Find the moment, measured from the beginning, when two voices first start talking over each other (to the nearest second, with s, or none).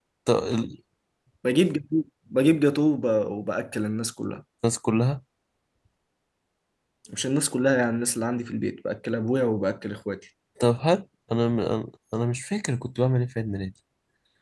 none